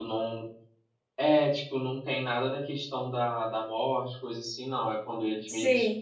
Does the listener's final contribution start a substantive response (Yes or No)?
No